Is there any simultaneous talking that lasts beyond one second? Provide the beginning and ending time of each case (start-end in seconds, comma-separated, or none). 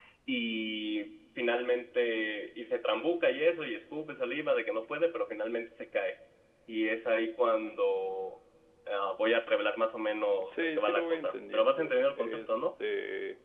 10.4-12.7